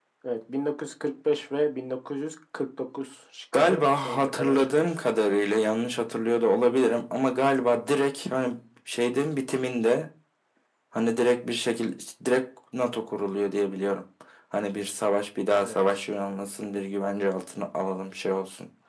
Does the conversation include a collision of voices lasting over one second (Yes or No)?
Yes